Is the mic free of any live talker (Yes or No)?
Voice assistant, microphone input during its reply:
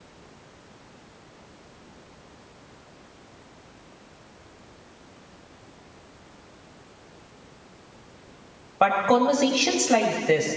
No